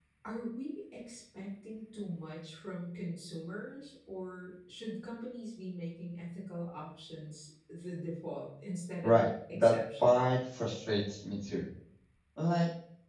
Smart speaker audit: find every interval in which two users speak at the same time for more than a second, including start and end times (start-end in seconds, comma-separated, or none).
9.0-10.4